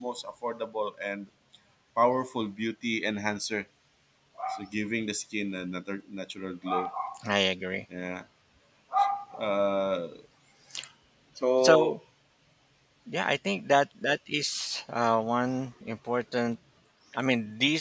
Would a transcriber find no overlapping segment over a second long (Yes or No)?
Yes